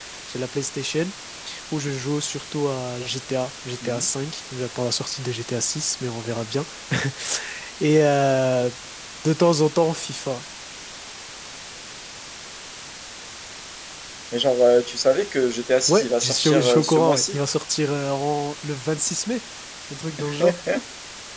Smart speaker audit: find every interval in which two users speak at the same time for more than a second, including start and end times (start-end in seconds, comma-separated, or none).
15.9-17.4